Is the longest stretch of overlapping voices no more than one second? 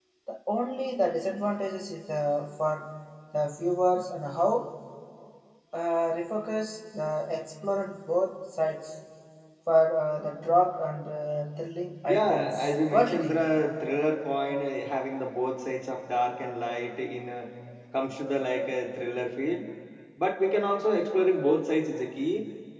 No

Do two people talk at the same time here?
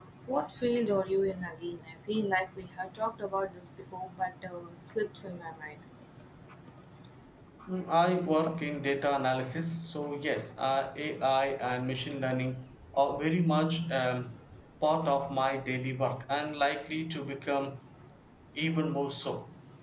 No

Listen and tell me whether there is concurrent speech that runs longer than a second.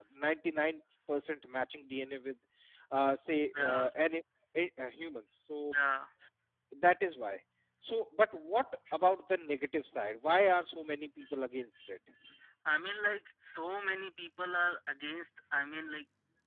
No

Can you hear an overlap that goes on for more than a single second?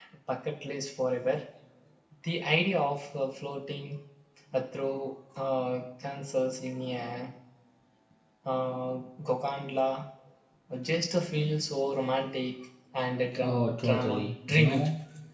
Yes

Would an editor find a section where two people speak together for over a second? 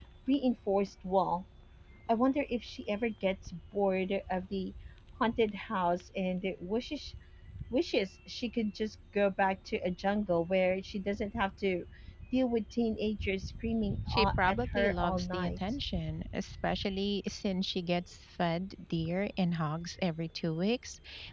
Yes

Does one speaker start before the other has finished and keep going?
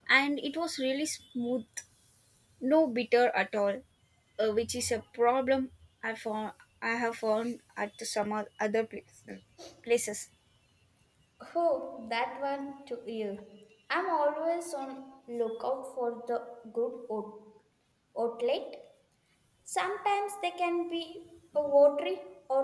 No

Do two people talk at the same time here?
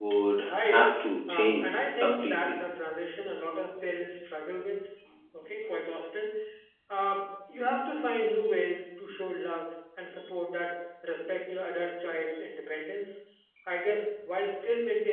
Yes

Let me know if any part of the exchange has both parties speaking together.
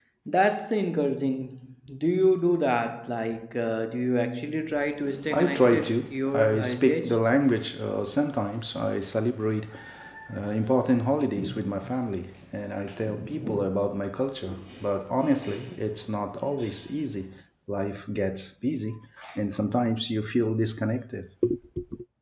Yes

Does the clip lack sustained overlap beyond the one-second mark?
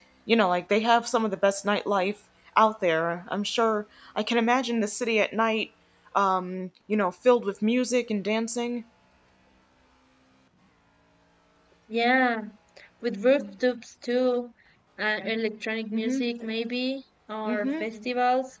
Yes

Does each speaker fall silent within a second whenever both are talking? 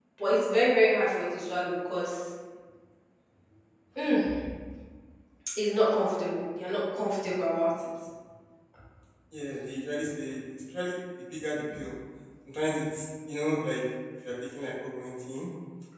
Yes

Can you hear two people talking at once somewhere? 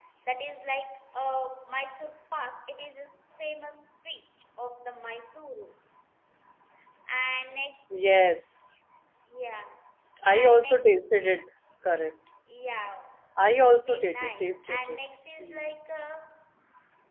Yes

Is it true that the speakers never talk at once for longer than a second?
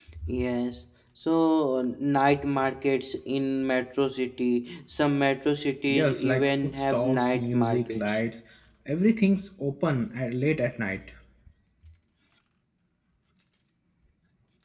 No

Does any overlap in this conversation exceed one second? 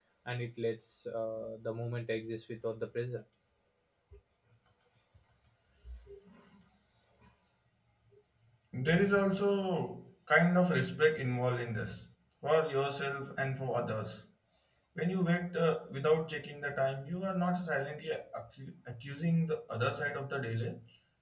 No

